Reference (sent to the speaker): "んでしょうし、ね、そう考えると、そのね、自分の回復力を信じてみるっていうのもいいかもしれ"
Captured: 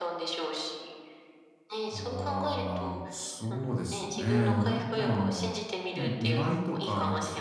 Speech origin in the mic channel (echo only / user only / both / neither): both